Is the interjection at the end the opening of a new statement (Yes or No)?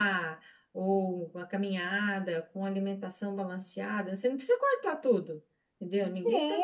Yes